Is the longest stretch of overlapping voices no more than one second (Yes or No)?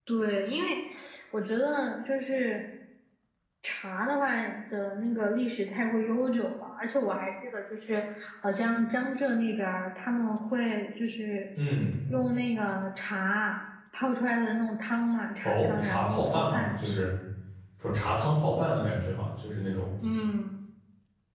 No